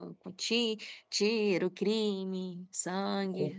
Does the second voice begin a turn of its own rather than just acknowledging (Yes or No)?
Yes